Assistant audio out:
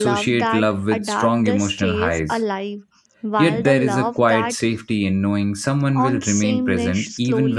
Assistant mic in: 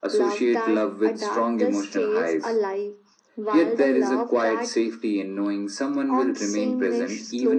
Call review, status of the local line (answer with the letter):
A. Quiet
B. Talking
A